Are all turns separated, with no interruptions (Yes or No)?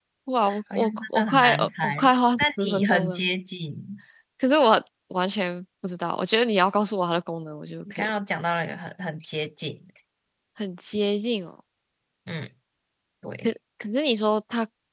No